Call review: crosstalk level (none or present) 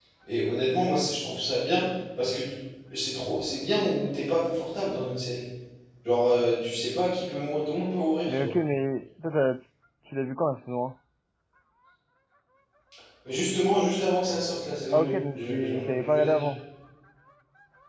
present